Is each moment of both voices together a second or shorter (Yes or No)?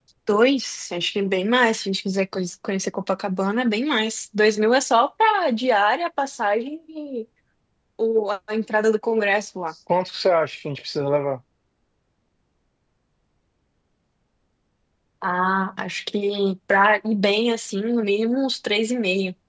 Yes